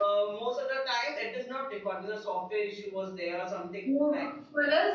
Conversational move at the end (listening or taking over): taking over